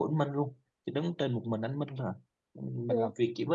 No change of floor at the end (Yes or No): Yes